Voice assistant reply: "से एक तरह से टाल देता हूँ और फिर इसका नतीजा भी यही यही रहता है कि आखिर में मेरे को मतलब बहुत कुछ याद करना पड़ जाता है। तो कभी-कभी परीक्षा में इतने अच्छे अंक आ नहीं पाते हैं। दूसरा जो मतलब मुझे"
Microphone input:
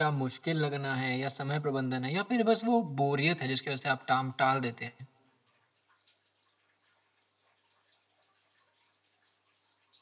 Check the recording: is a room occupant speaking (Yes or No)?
Yes